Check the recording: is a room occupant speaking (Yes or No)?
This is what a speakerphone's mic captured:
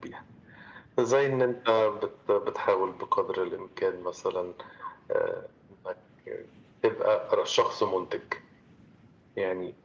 No